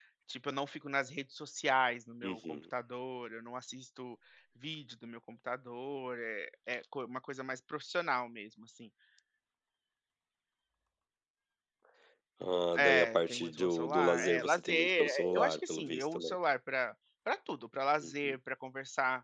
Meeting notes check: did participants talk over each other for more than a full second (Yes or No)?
Yes